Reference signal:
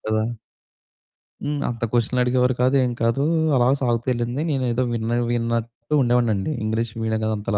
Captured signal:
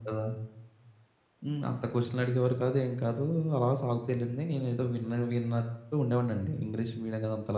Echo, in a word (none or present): present